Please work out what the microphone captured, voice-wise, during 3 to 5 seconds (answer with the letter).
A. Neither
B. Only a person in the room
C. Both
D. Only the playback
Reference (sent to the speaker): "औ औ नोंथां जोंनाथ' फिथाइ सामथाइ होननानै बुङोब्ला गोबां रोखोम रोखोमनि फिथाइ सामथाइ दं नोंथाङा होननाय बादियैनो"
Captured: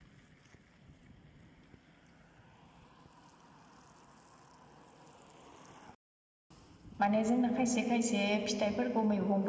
A